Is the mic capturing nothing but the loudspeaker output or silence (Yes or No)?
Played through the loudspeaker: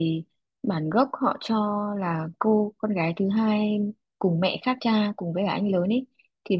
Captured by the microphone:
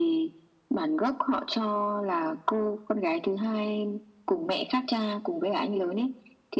Yes